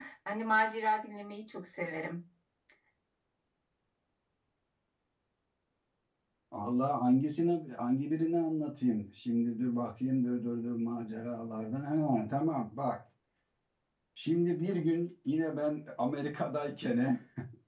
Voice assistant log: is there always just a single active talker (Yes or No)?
Yes